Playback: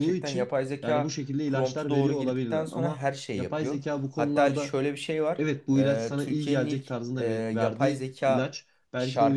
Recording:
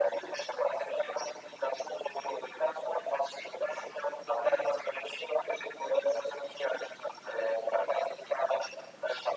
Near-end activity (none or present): none